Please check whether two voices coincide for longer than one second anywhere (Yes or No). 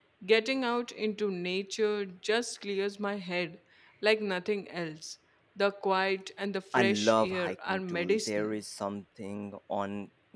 Yes